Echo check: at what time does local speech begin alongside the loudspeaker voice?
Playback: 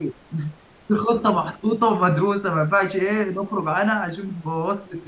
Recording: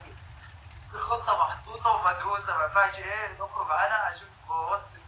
none

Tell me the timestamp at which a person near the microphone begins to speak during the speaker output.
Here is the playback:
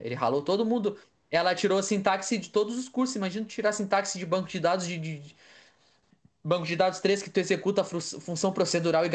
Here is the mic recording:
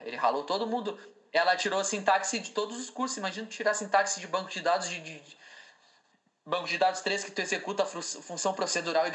none

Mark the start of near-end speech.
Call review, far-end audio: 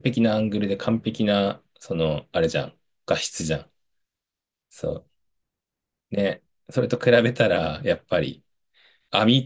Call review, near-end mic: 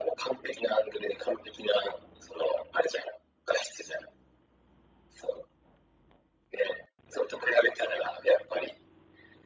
none

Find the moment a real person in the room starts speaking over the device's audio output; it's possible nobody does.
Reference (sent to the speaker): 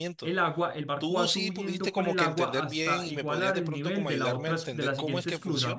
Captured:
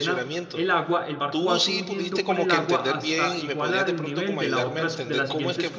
none

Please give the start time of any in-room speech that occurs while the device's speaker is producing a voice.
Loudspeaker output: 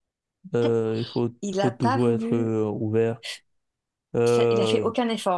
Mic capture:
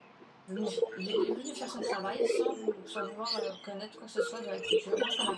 0.5 s

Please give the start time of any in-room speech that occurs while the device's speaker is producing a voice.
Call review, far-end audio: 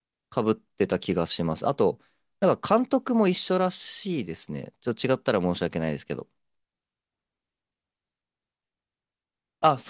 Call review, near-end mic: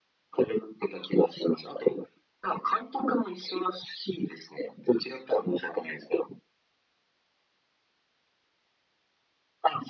none

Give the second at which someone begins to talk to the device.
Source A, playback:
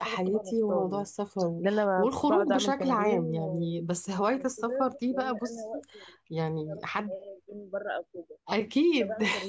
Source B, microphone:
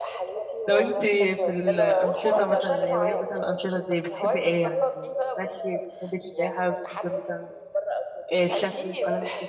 0.7 s

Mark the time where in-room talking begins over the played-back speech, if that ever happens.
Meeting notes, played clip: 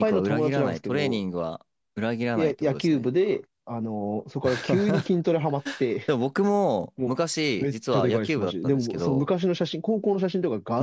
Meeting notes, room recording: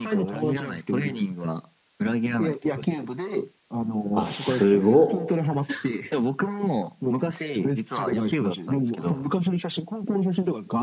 4.1 s

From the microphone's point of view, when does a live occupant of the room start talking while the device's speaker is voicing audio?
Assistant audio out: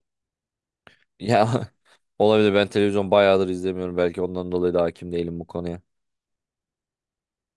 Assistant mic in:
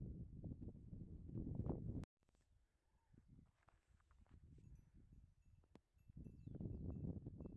none

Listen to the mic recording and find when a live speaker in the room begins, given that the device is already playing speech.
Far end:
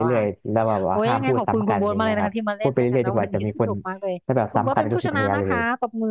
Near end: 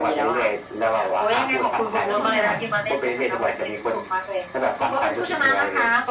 2.1 s

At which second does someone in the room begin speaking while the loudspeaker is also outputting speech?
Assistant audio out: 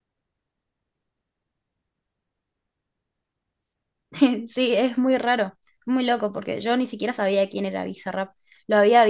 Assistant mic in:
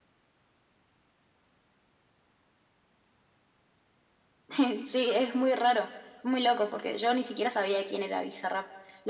none

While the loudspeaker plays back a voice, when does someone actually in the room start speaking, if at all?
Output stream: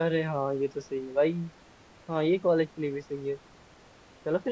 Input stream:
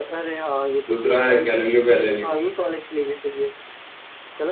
0.9 s

